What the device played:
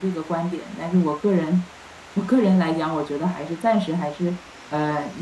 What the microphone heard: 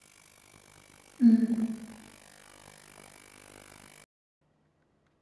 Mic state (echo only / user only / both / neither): user only